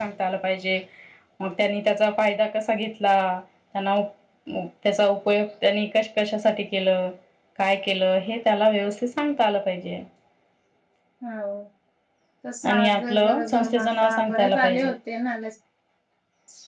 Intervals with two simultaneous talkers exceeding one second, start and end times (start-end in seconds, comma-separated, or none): 12.7-14.9